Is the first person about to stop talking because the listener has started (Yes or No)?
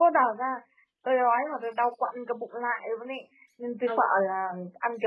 No